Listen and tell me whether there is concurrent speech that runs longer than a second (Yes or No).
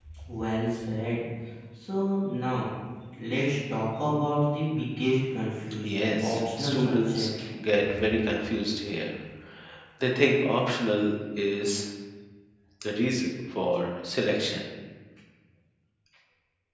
Yes